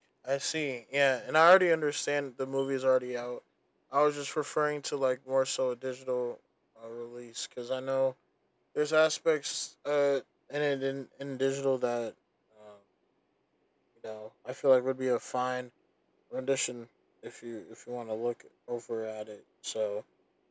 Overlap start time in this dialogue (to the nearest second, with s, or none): none